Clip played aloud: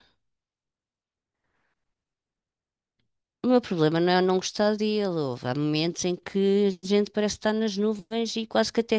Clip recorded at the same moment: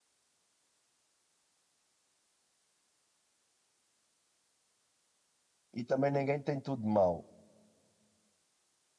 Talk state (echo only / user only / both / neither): user only